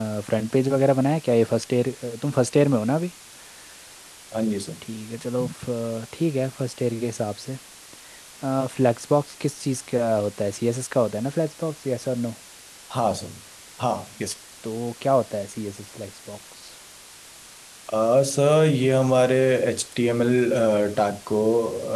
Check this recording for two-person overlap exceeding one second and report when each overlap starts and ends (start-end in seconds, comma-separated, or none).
none